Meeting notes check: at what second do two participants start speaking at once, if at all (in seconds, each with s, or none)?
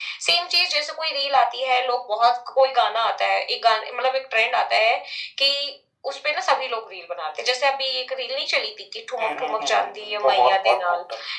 9.2 s